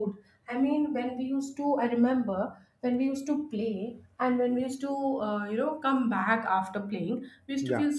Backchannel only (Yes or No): Yes